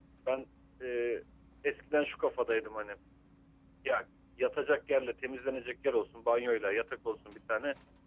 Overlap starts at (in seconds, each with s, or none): none